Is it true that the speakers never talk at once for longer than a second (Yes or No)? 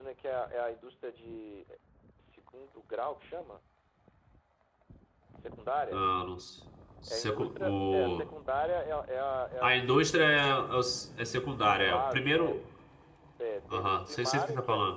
No